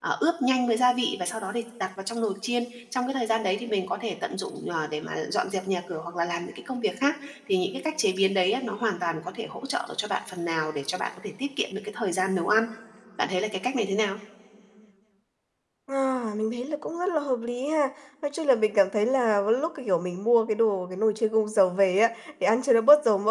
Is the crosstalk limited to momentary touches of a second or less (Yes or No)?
Yes